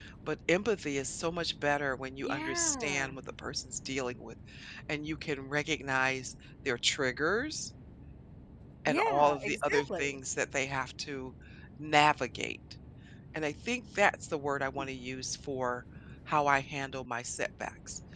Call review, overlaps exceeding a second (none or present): present